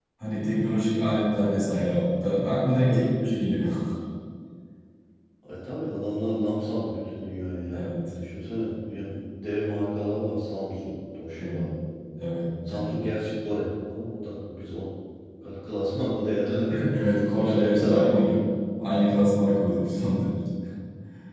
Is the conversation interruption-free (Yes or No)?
No